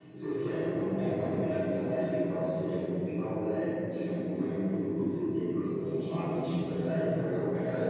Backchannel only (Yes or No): Yes